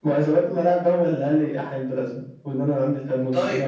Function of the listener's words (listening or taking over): taking over